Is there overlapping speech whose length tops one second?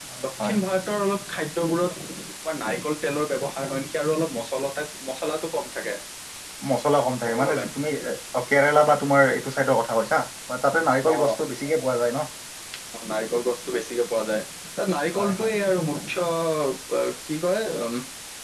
No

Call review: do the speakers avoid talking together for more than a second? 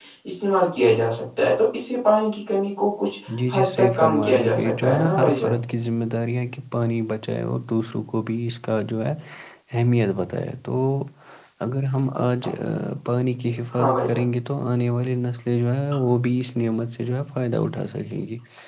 No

